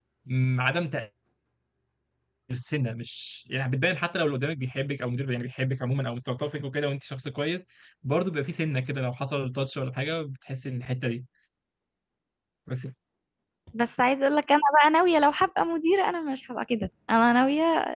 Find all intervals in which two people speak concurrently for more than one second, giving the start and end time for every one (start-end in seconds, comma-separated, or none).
none